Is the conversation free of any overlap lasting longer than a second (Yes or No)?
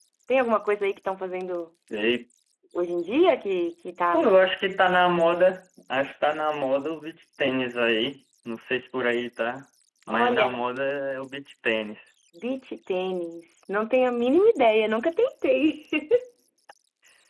Yes